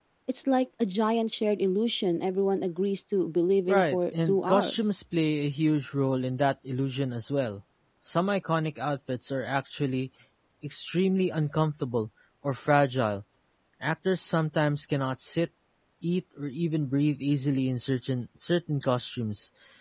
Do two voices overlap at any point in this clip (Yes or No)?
Yes